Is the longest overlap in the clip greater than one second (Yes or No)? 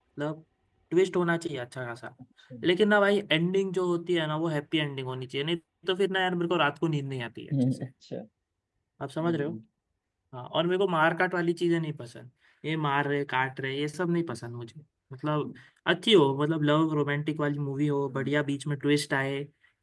No